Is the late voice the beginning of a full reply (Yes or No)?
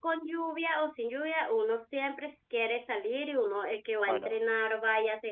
No